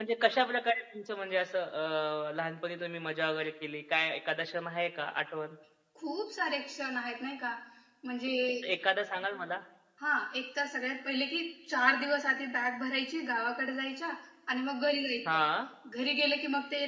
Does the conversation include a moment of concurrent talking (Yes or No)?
No